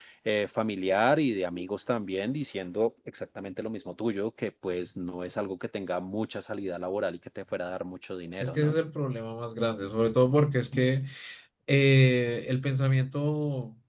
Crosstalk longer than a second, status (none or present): none